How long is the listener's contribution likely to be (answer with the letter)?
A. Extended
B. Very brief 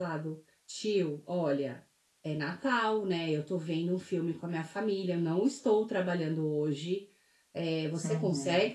B